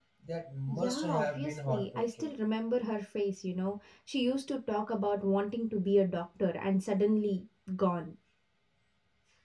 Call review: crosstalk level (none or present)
present